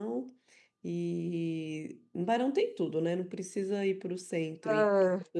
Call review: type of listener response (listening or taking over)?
listening